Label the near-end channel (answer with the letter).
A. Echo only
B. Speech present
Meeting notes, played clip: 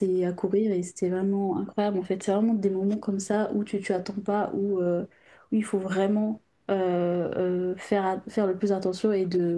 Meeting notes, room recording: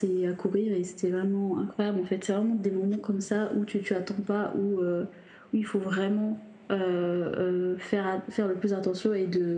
A